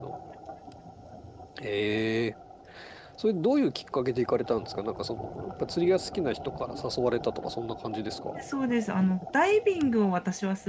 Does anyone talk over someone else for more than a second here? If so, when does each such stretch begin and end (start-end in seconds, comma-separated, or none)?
none